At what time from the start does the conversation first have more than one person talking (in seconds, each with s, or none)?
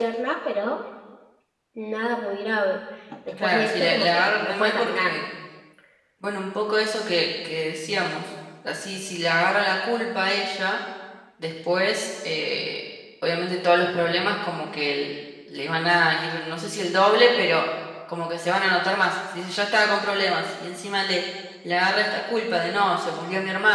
3.4 s